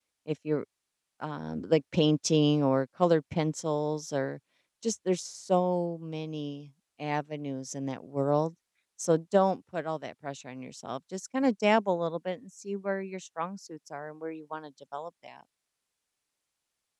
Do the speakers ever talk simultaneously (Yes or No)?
No